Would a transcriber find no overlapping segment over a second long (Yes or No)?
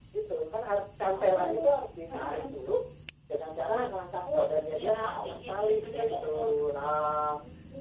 No